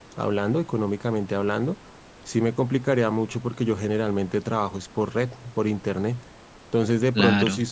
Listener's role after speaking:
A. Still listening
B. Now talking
A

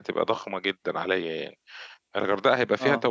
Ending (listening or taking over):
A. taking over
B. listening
B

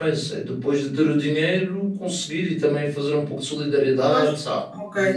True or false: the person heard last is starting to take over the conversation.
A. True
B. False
A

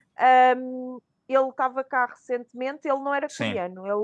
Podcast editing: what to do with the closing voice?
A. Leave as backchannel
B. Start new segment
A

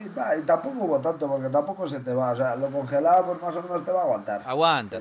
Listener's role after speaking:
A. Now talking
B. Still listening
A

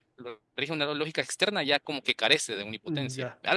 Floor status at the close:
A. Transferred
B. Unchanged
A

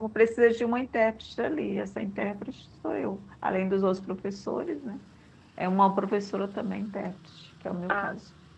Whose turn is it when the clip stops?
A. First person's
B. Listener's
B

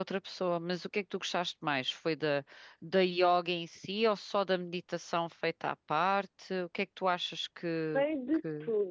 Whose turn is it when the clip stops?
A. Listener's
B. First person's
A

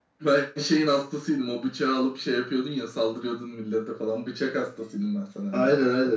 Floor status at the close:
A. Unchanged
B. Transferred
B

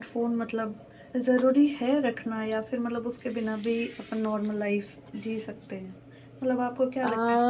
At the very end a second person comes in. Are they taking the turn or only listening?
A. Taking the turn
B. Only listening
B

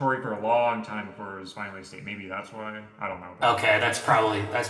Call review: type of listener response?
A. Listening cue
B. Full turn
B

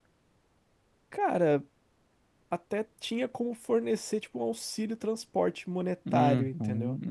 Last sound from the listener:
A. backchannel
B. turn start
B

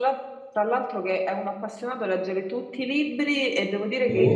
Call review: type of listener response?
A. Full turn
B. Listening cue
B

